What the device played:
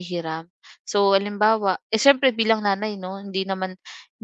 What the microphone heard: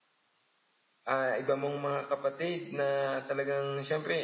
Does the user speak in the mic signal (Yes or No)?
Yes